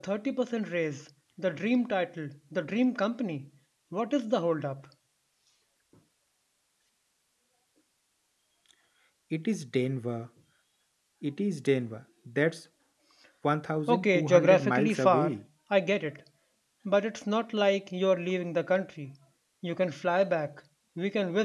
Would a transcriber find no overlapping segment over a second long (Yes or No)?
No